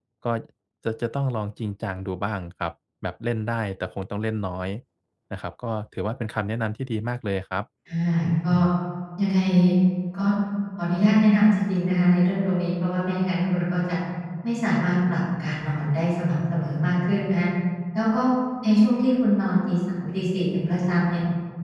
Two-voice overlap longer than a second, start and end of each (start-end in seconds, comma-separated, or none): none